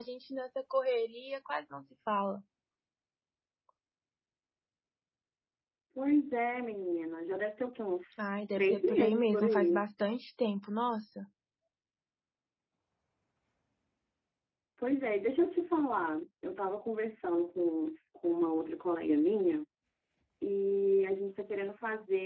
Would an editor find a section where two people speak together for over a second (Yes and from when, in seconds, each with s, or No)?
Yes, from 8.2 s